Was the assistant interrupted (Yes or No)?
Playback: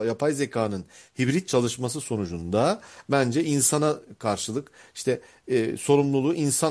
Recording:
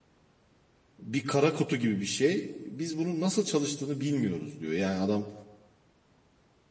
Yes